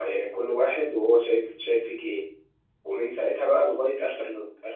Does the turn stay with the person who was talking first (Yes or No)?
Yes